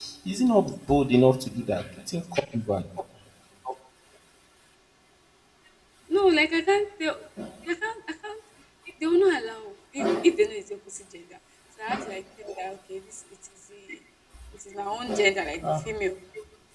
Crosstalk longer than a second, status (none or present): none